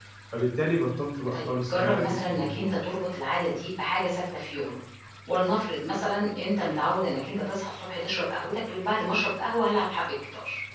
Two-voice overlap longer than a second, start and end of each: 1.3-2.7

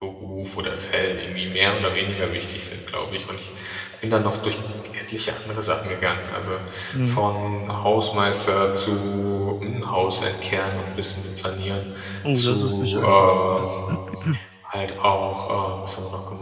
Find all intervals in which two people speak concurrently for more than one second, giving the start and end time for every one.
12.3-13.7

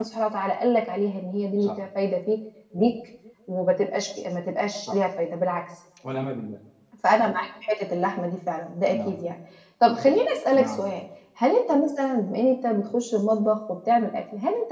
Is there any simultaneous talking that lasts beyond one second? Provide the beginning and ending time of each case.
none

